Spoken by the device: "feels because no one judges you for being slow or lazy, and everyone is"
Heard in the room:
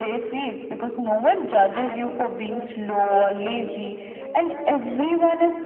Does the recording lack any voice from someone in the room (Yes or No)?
No